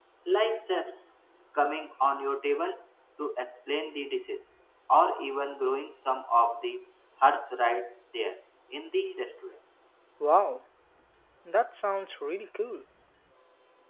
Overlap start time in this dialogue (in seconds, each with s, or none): none